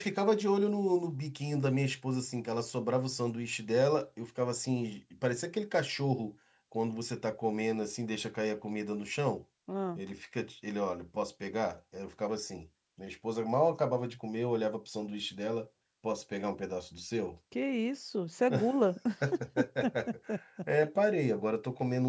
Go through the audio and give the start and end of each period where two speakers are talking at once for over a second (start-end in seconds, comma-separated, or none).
none